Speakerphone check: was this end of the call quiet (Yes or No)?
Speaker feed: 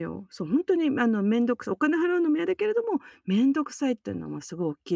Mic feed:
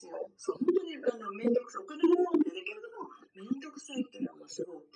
Yes